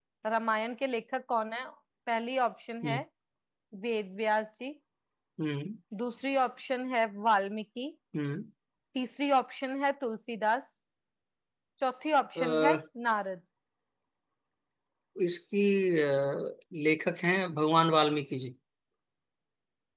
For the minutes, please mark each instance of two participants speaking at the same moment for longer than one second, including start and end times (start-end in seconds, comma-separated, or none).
none